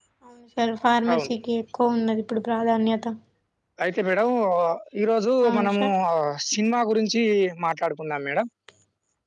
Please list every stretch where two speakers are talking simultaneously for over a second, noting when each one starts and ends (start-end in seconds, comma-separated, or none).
none